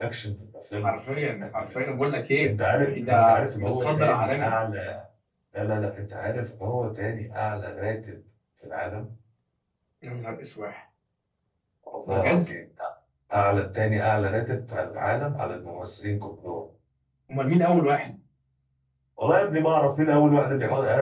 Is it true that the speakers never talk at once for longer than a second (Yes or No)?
No